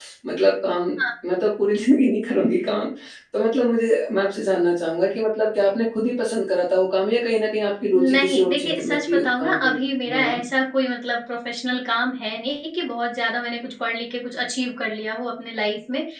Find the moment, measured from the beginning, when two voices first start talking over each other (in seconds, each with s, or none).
7.9 s